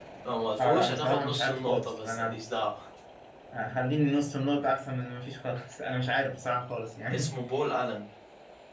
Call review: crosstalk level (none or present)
present